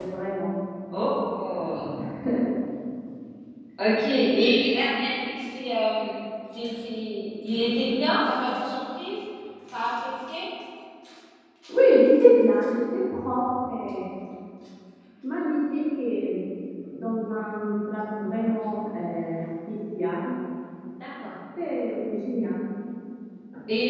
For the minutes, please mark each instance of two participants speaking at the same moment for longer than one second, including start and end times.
none

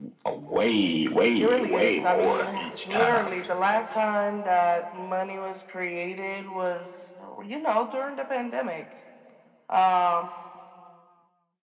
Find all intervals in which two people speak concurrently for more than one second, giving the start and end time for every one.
1.4-3.3

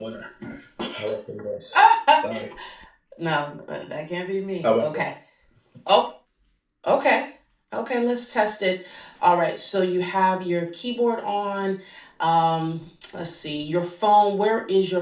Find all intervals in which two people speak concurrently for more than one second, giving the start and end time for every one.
none

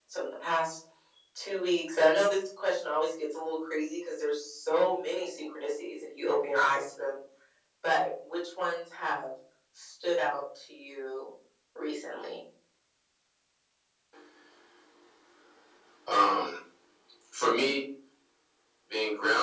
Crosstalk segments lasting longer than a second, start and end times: none

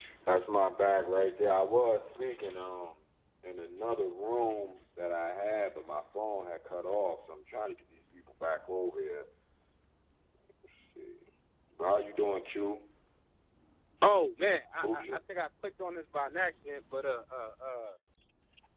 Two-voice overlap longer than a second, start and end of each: none

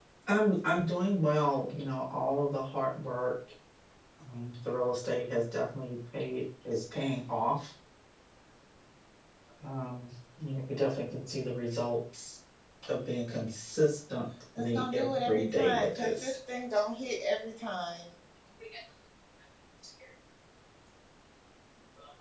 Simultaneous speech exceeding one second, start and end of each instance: 14.6-16.4

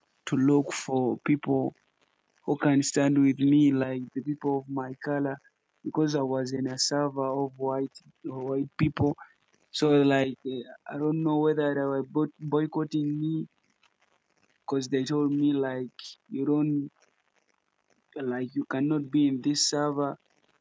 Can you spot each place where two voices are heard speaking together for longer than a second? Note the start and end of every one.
none

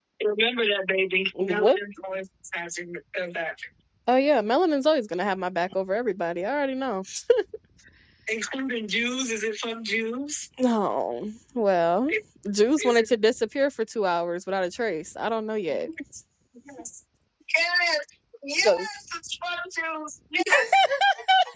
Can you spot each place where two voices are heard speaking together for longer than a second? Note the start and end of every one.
none

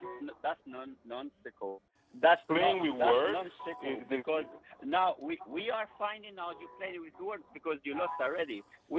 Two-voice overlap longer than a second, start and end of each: 2.5-4.3

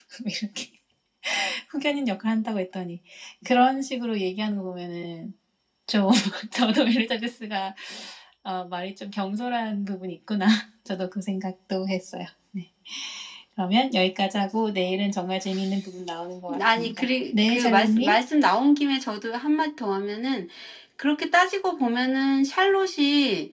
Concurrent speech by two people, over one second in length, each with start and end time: 16.8-18.2

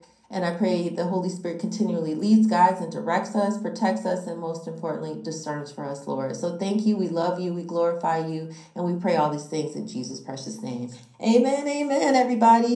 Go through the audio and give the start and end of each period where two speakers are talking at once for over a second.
none

